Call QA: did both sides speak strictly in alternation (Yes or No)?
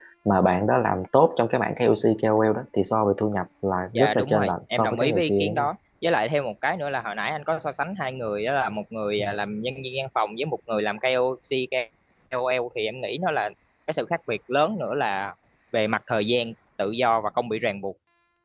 No